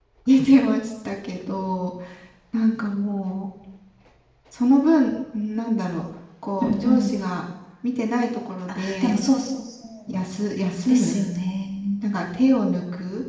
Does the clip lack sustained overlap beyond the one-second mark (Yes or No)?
Yes